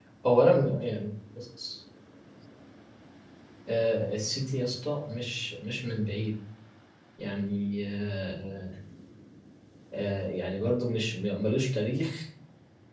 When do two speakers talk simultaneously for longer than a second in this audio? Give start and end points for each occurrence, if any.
none

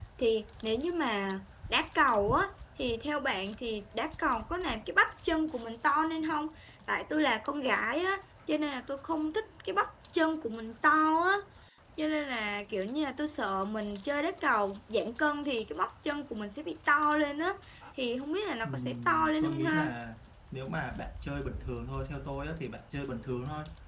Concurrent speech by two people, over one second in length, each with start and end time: 18.6-19.9

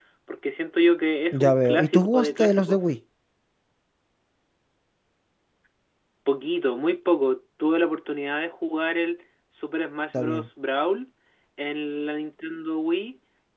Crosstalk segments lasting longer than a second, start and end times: 1.3-2.8

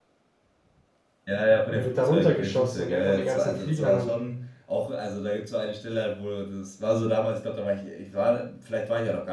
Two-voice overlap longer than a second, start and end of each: 1.8-4.2

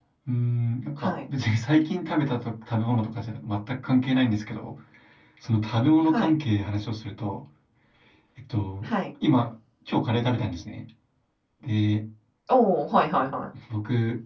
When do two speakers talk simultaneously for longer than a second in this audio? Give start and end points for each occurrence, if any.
none

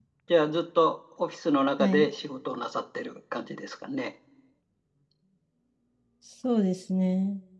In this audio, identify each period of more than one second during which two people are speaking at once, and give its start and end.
none

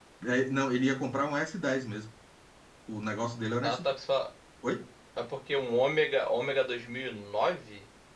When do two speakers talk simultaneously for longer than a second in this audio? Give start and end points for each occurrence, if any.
none

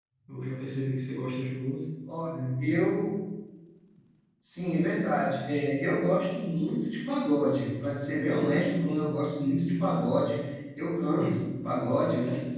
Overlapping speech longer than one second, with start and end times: none

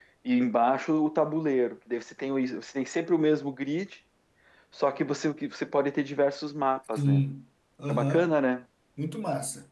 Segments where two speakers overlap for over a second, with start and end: none

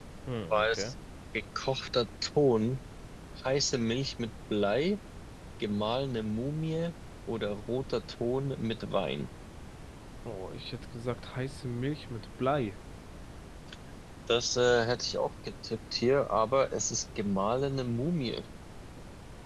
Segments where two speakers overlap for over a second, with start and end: none

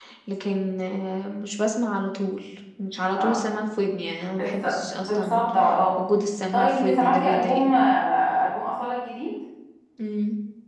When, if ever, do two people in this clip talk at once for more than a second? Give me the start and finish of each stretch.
6.5-7.8

